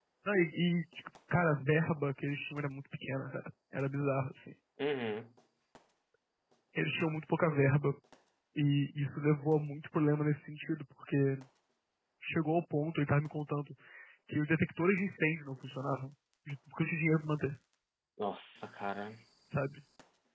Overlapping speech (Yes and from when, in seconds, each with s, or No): No